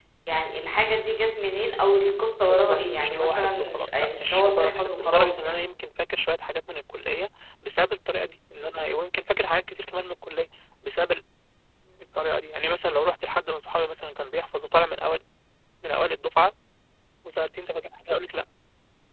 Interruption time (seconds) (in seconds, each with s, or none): 2.4 s